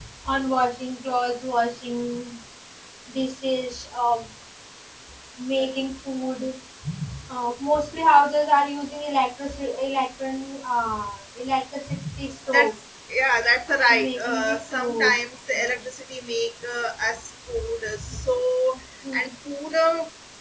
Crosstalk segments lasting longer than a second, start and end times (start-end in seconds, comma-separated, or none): 13.9-15.1